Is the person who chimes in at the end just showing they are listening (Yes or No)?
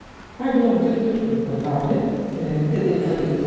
Yes